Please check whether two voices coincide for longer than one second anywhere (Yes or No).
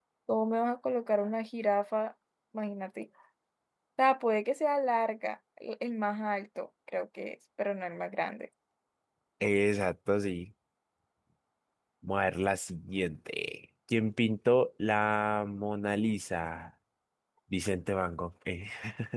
No